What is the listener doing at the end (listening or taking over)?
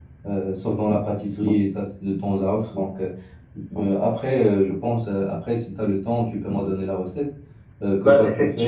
listening